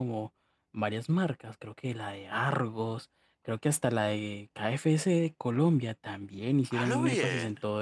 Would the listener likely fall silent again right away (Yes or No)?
Yes